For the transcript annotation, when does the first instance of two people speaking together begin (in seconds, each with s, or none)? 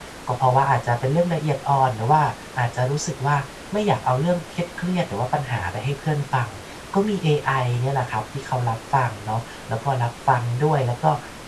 none